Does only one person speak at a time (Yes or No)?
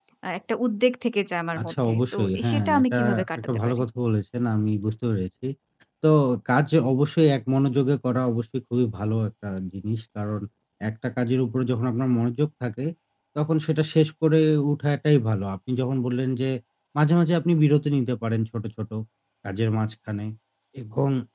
No